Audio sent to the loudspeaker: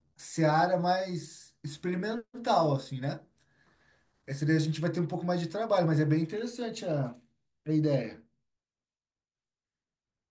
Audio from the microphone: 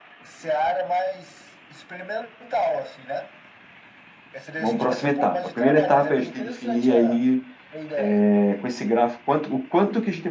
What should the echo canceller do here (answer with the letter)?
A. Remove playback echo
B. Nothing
A